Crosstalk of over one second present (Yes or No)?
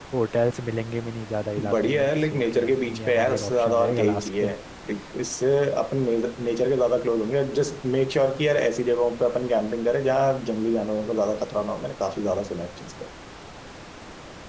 Yes